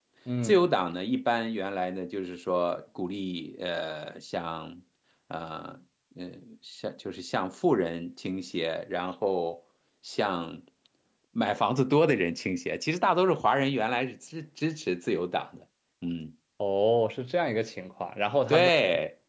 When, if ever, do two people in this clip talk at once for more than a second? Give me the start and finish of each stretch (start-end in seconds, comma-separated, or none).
none